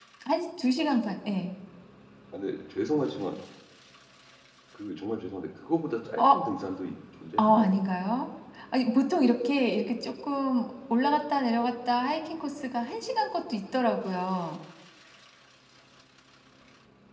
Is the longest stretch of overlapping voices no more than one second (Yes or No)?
Yes